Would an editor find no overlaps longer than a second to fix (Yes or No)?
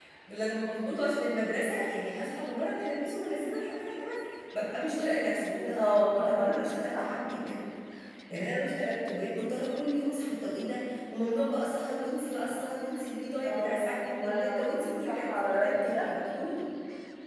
No